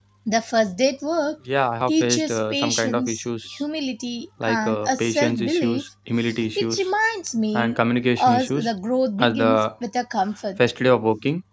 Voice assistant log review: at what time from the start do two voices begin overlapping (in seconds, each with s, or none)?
1.9 s